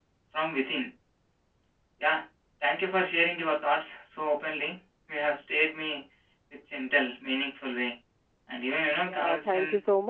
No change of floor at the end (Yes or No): No